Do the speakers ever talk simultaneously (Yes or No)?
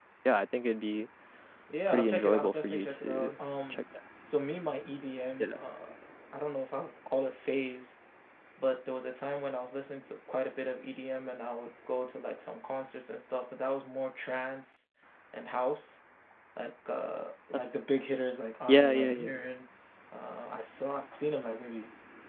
Yes